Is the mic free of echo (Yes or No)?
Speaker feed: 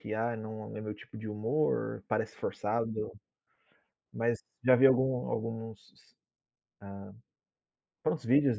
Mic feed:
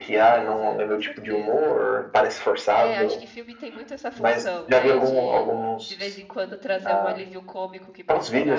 No